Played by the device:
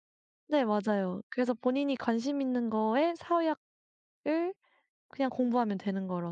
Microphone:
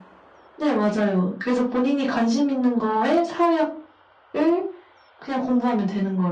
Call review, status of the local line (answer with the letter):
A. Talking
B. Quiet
B